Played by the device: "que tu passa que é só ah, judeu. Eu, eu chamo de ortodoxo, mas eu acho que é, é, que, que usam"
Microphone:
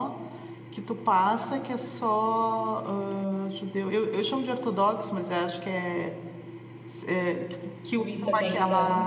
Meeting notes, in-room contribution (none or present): present